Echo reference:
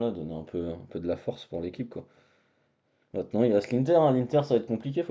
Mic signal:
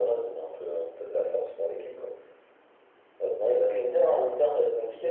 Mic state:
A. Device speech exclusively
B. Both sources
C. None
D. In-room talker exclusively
A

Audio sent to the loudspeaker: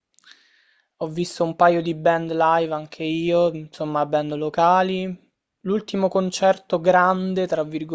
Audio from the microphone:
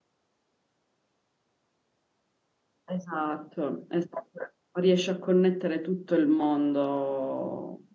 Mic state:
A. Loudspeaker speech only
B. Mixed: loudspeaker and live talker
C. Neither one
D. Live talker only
D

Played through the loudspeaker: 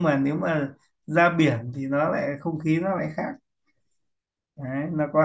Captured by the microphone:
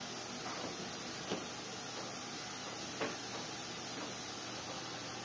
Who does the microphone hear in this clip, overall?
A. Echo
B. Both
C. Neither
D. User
C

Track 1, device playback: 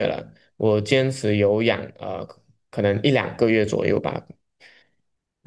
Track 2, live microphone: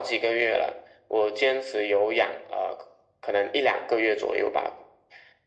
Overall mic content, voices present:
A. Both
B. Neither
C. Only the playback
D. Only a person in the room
C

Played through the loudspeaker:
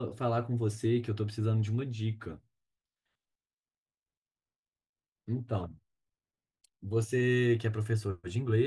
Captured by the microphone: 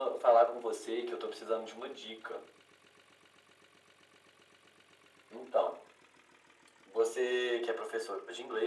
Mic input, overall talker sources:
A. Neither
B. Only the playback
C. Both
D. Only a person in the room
B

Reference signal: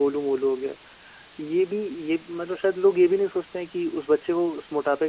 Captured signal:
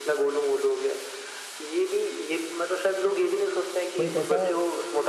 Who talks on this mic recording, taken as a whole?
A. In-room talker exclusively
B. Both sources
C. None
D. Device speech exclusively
B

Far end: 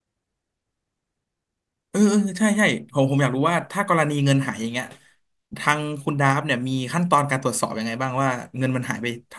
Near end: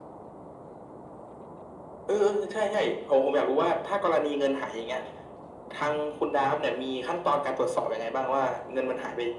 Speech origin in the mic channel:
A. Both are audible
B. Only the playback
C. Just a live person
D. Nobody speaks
B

